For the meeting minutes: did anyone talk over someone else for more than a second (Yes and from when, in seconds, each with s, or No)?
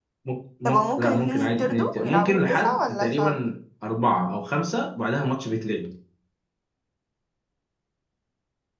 Yes, from 0.7 s